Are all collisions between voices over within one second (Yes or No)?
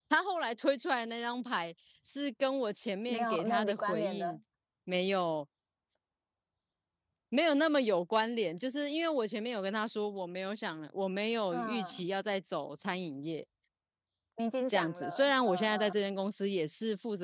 No